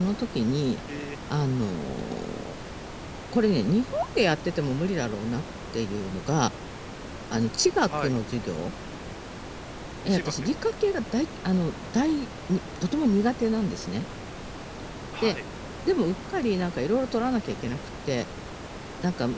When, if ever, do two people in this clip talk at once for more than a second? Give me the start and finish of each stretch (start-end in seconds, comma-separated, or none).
none